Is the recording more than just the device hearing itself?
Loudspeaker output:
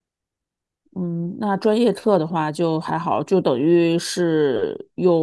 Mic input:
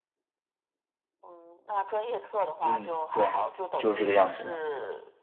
Yes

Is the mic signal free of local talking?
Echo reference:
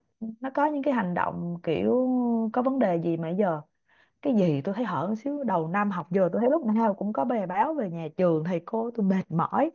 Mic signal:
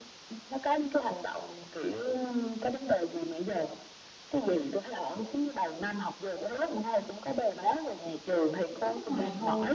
No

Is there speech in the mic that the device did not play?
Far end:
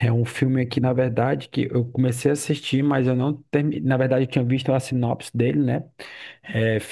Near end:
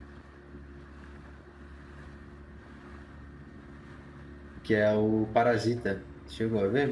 Yes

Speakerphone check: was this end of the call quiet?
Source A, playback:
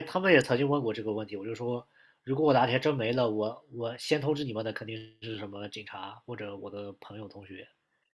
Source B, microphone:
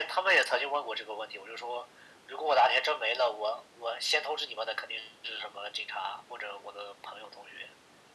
Yes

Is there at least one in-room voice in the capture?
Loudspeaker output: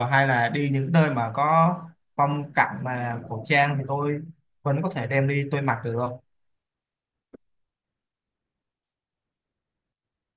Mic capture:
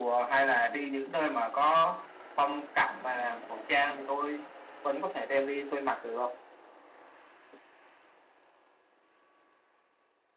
No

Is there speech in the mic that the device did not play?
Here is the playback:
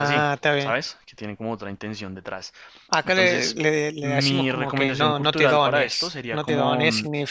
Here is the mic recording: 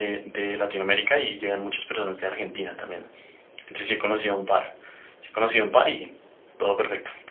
Yes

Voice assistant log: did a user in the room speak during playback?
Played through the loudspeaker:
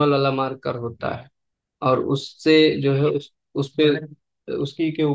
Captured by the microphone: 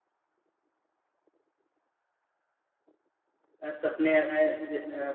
Yes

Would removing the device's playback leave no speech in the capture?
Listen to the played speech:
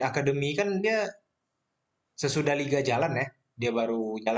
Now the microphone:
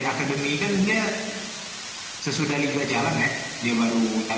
Yes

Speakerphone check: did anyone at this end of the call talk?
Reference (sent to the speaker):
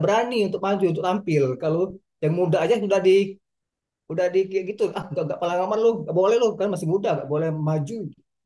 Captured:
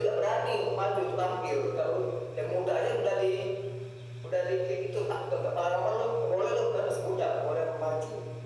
No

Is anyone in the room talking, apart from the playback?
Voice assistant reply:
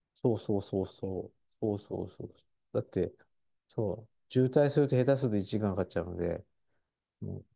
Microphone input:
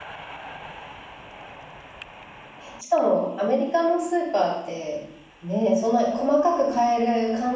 Yes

